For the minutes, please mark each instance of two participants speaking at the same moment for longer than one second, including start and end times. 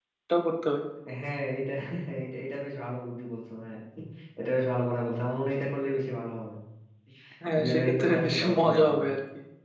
7.6-8.8

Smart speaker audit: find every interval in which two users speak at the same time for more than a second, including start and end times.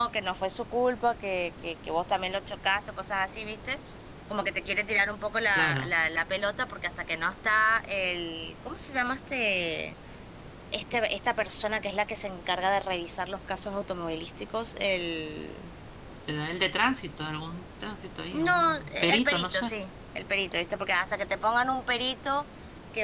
18.3-19.7

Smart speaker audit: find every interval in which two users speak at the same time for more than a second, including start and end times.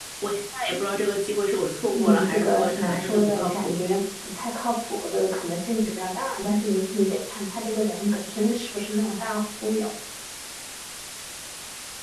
1.9-3.7

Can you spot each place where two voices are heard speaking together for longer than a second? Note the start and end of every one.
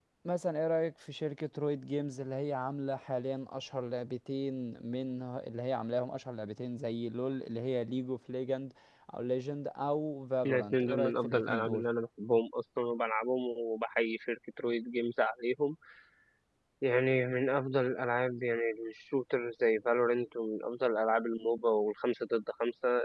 10.4-11.8

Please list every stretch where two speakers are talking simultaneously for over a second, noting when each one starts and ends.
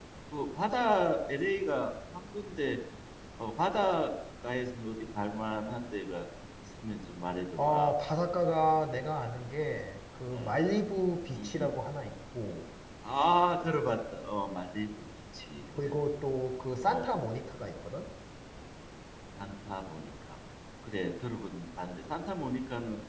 none

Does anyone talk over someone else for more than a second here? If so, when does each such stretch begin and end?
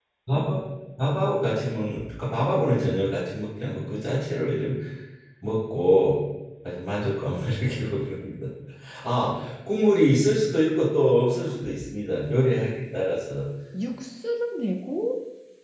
none

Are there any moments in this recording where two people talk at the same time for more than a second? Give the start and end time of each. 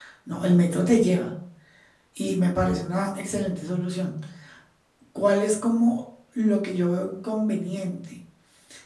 none

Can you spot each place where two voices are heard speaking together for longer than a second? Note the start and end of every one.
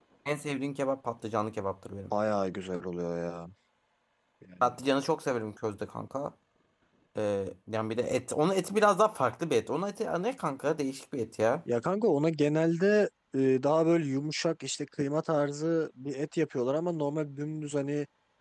none

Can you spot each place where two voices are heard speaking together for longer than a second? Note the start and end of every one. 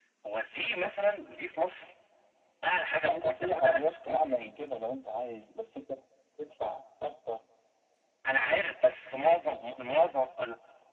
3.0-4.5

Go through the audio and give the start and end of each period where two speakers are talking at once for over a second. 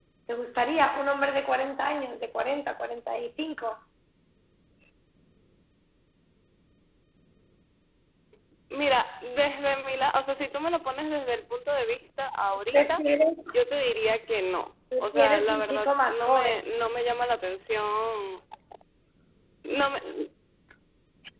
15.0-16.5

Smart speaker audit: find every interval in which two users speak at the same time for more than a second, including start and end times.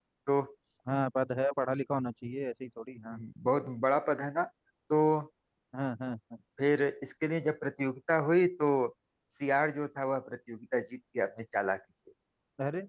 none

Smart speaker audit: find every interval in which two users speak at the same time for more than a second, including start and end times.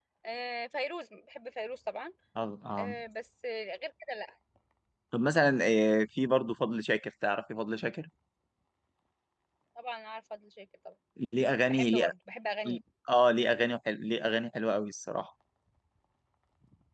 none

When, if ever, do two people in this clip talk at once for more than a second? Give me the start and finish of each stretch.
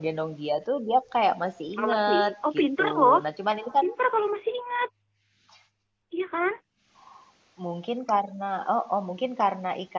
1.8-3.2

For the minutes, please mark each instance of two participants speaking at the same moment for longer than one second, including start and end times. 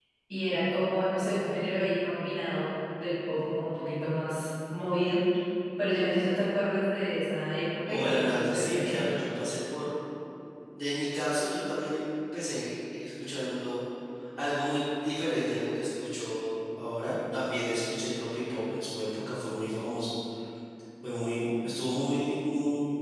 7.9-9.2

